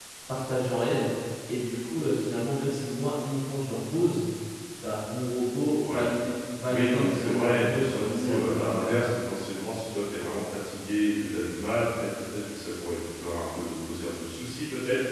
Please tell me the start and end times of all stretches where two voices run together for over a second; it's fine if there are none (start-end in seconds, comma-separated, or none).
6.6-9.1